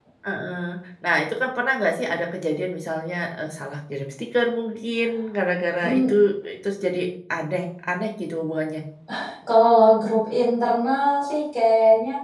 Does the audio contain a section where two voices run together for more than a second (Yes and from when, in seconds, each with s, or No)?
No